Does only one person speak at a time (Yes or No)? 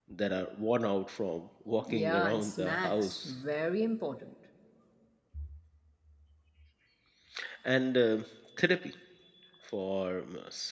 No